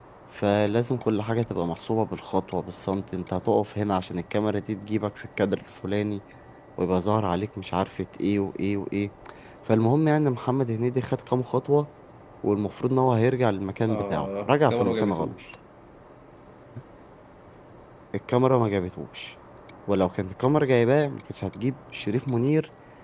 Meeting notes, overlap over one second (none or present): present